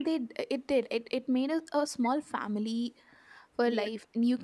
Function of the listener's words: listening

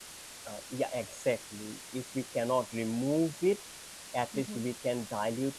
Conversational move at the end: listening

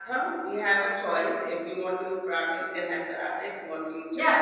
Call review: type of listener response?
taking over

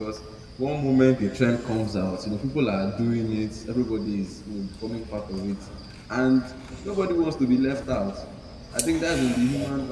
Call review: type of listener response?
listening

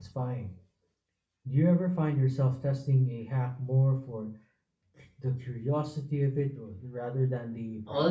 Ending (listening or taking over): taking over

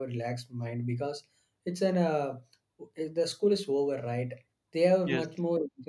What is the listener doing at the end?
listening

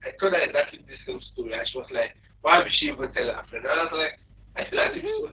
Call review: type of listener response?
listening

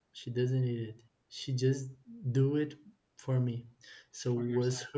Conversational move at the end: listening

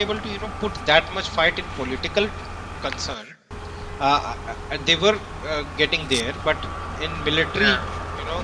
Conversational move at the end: listening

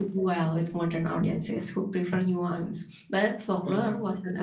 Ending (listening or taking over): listening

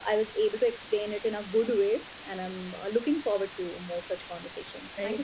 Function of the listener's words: taking over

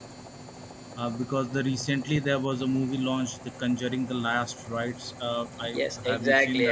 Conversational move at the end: taking over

